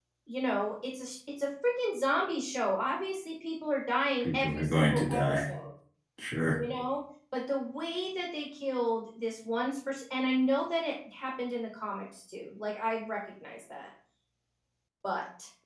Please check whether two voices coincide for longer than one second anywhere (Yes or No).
Yes